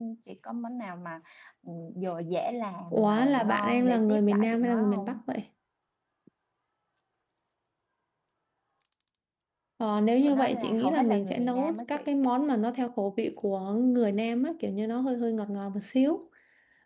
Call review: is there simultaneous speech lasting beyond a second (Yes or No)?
Yes